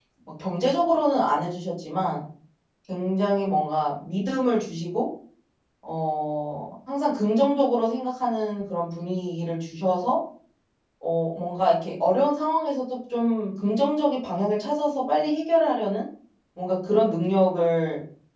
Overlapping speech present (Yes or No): No